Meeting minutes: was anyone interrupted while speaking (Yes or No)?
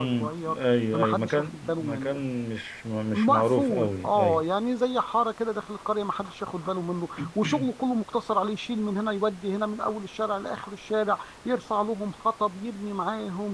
Yes